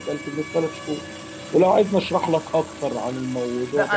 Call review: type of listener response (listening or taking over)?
taking over